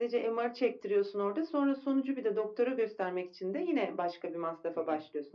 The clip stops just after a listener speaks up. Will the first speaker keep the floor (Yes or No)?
No